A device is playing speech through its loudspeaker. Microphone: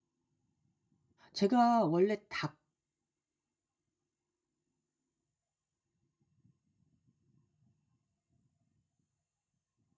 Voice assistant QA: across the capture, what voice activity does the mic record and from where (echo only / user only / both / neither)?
user only